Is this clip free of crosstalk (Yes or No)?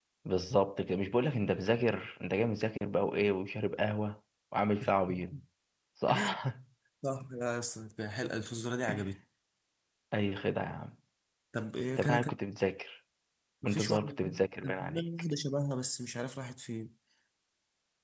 No